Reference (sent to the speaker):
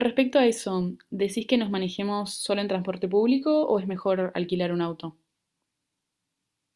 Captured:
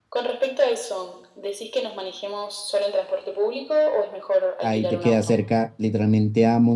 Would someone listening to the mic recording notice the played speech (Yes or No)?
Yes